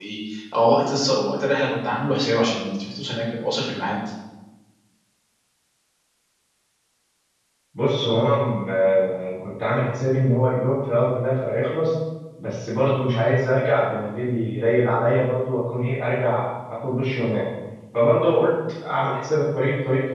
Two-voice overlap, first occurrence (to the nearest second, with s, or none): none